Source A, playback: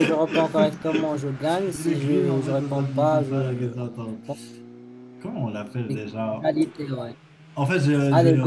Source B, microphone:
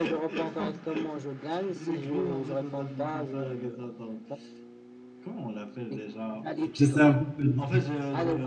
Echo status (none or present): present